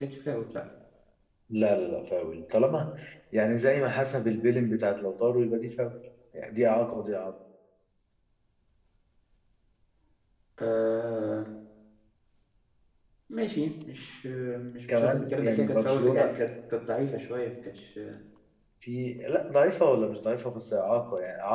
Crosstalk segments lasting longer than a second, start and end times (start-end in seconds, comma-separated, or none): 14.9-16.3